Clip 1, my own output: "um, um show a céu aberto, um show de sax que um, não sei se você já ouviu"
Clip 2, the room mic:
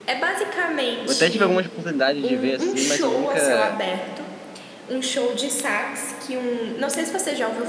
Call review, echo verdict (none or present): present